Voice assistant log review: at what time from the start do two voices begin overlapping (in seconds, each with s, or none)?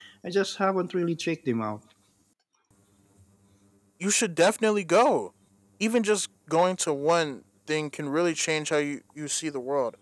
none